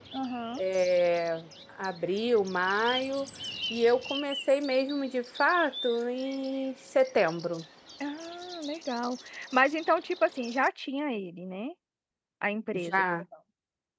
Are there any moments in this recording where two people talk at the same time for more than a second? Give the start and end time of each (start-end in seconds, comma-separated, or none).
none